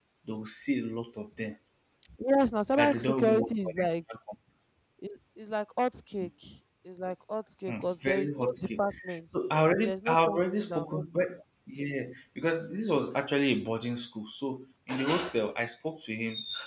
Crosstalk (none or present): present